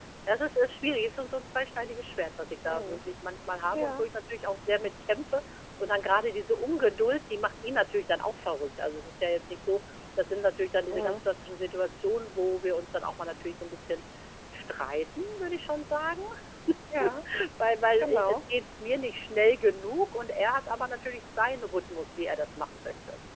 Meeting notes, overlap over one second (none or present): none